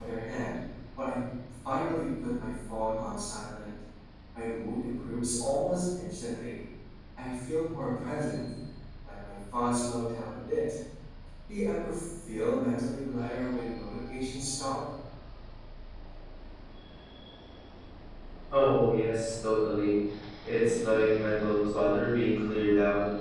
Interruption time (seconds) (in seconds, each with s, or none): none